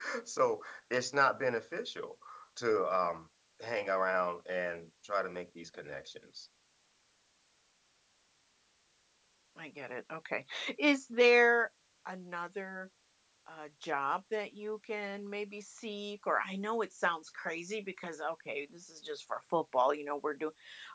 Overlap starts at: none

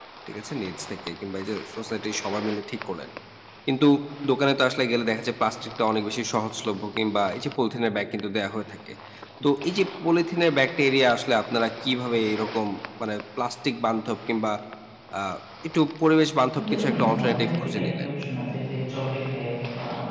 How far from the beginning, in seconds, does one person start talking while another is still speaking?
16.5 s

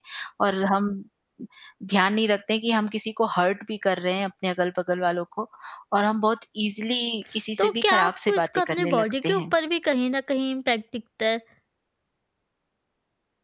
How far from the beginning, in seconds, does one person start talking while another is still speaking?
7.6 s

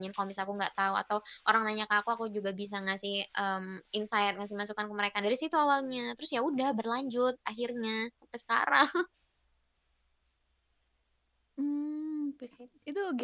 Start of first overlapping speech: none

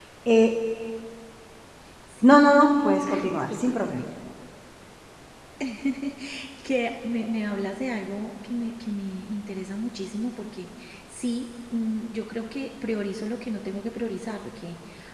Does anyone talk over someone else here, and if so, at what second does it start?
2.2 s

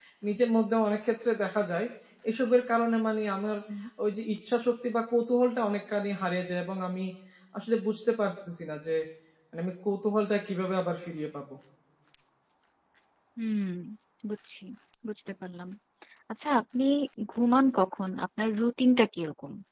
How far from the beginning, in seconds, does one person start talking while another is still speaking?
none

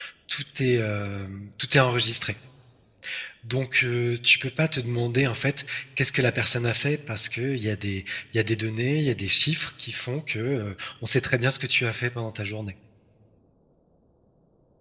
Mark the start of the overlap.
none

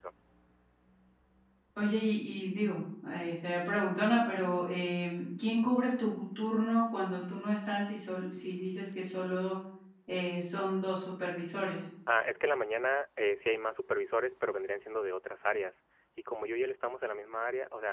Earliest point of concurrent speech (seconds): none

